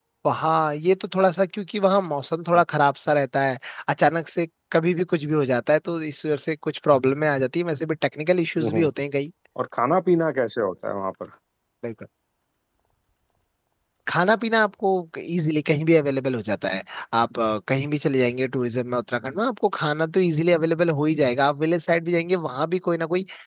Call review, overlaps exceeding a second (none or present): none